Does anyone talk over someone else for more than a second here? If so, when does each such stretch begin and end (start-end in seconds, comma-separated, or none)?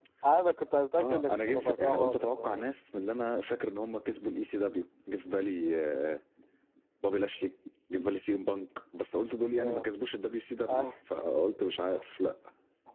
1.0-2.6